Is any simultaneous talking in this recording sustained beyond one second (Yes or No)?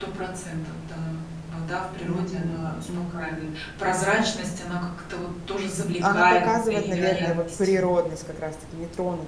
Yes